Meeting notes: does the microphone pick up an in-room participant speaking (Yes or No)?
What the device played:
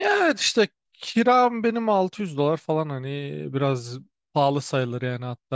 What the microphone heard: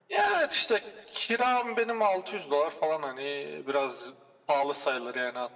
No